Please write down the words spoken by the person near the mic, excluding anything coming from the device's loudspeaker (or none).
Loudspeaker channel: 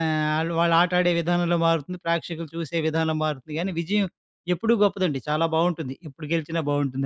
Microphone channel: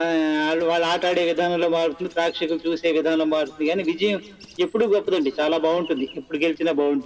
none